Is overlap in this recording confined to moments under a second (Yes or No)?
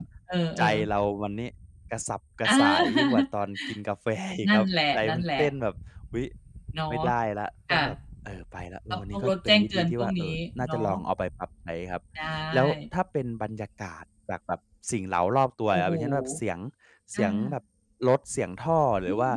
No